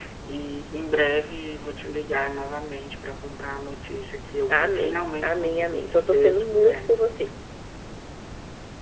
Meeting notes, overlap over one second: present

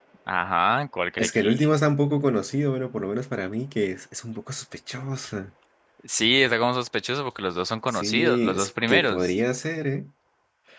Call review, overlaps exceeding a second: present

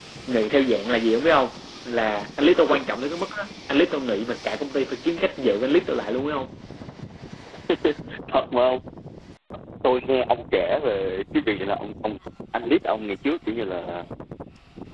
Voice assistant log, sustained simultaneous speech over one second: none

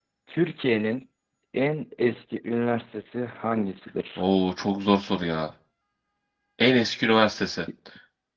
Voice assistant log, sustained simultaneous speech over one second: none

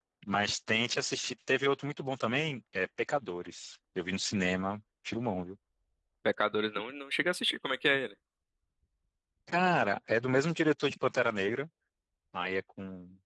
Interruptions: none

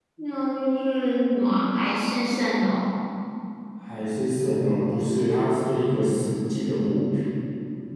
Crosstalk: none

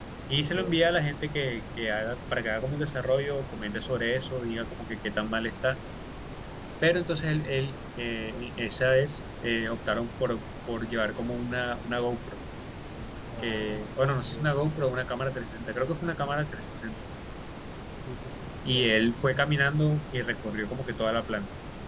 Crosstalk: present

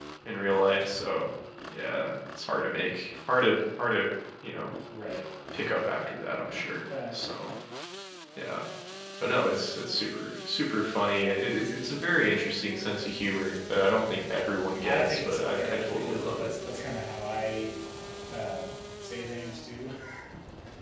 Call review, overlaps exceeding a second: present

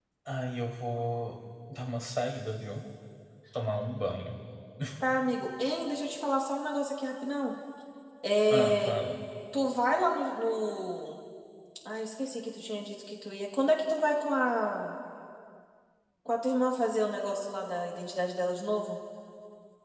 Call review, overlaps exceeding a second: none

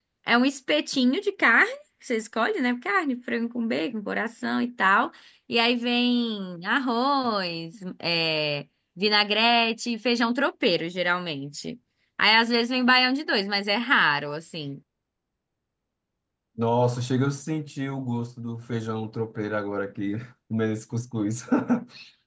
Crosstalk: none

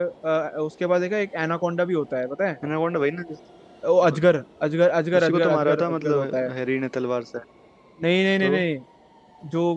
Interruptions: present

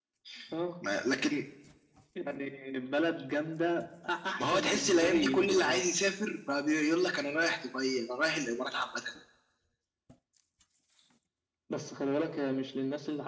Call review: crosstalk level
present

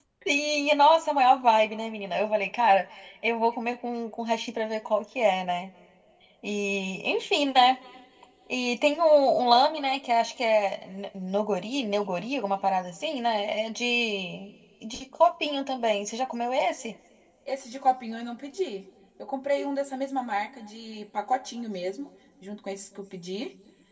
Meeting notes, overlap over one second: none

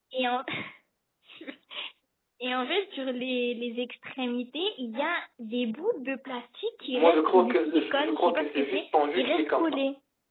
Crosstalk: present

